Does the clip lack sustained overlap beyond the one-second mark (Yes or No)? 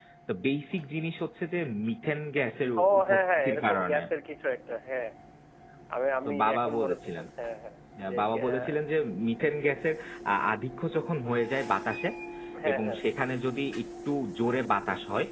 No